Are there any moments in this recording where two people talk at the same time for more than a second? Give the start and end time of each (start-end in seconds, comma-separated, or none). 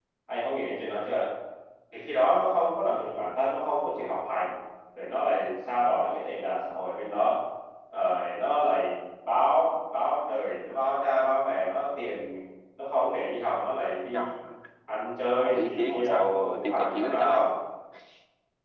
15.4-17.4